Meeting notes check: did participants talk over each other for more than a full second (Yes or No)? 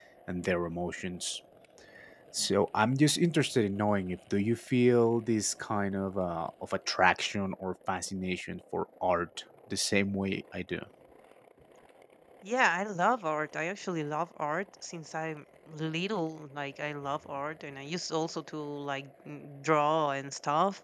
No